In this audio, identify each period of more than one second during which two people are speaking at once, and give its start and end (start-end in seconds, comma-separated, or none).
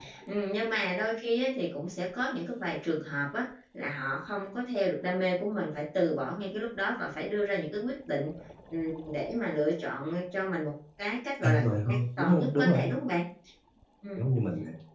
11.4-12.9